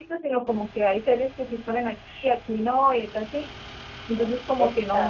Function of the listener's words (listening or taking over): listening